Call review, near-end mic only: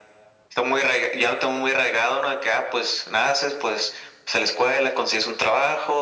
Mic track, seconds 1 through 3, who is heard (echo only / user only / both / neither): echo only